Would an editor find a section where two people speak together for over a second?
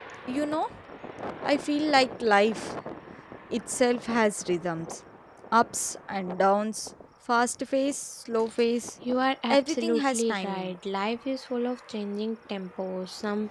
Yes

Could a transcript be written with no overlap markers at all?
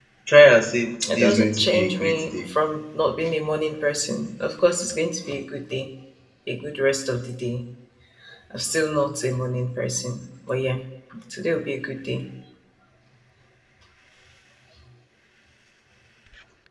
No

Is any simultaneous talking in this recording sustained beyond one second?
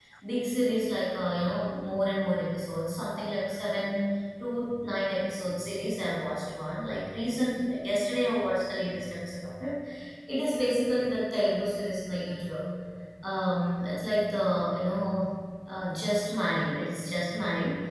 No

